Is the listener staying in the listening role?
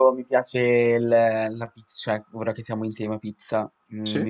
Yes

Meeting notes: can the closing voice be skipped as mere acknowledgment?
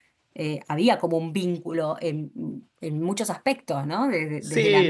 Yes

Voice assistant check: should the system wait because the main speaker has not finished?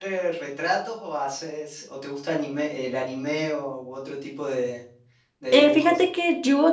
No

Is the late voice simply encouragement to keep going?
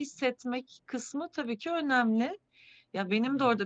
Yes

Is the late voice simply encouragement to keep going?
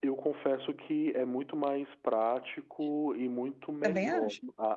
Yes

